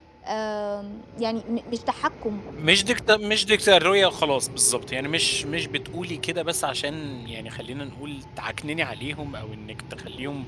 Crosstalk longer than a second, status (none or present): none